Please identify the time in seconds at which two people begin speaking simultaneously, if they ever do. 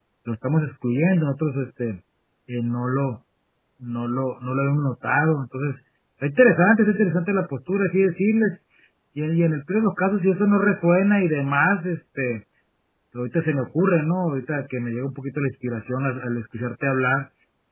none

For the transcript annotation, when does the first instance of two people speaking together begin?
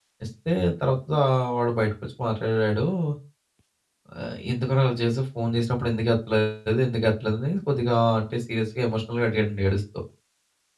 none

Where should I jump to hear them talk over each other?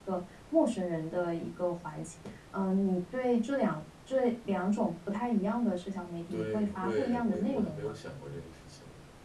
6.3 s

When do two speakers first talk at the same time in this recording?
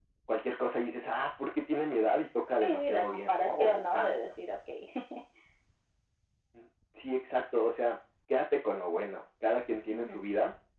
2.6 s

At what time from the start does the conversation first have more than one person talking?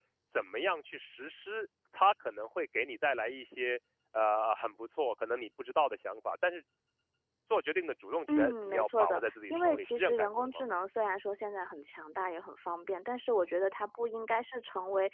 8.3 s

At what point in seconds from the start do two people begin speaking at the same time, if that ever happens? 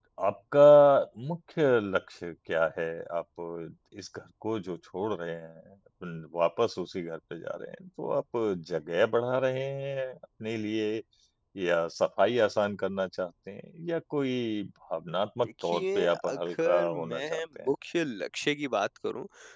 15.4 s

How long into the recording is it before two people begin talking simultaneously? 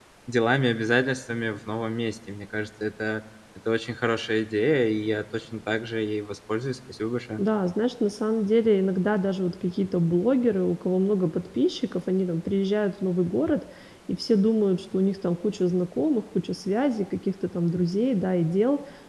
none

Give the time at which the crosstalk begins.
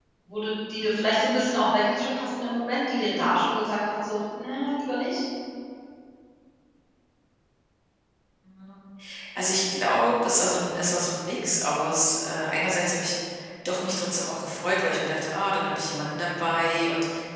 none

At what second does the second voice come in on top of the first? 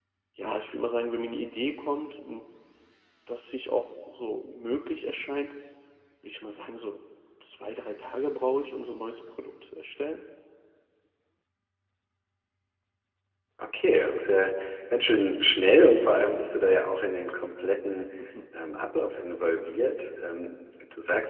none

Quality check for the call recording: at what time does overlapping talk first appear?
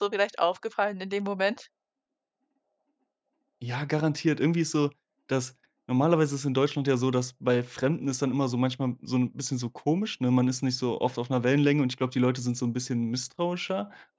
none

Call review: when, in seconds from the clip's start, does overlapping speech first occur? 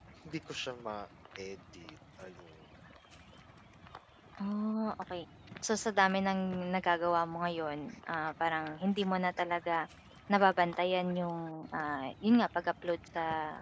none

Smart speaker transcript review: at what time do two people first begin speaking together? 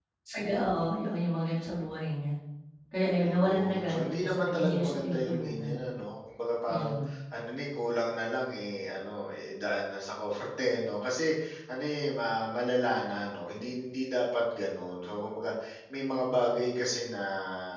3.2 s

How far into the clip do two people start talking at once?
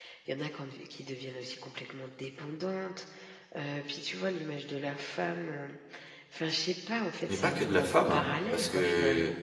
7.3 s

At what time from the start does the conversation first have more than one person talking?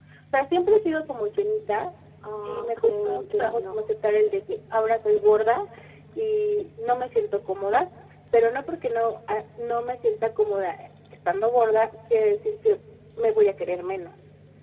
2.4 s

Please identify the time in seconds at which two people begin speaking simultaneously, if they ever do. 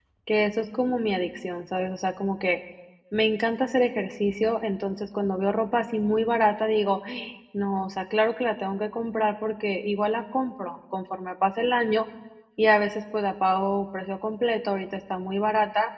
none

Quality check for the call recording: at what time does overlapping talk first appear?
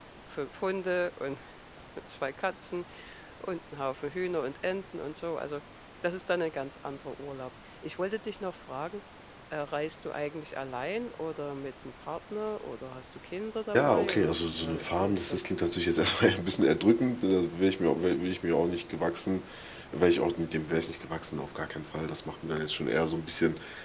13.7 s

